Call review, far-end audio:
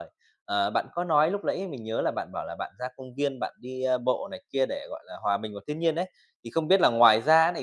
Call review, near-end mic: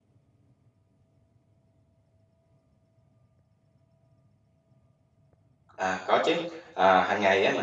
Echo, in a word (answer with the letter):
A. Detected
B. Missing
B